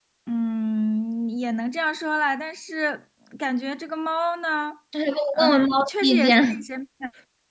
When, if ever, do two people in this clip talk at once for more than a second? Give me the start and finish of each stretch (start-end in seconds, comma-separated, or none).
5.3-6.6